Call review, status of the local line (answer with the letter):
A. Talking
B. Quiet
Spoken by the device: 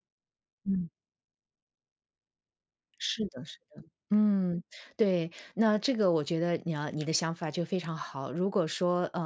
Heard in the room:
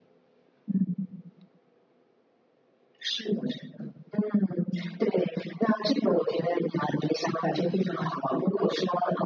B